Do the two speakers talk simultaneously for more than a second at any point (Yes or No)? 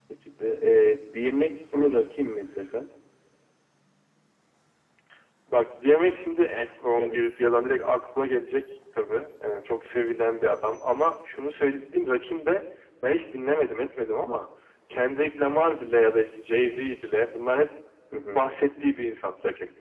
No